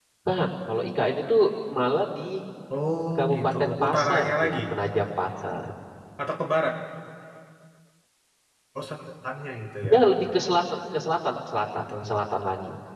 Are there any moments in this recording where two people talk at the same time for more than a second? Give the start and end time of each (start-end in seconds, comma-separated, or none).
3.2-4.6